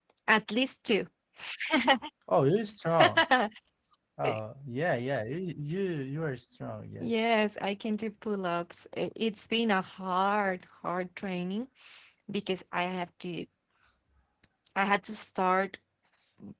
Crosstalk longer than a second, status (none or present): none